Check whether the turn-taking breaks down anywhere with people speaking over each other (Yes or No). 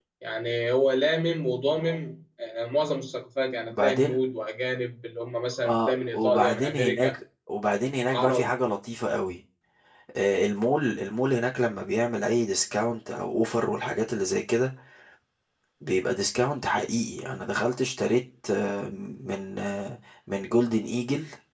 Yes